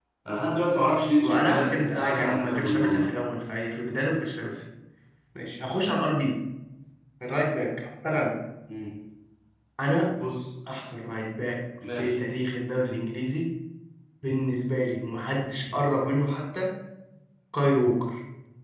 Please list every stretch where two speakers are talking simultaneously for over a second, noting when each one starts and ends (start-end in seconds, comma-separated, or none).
1.2-3.1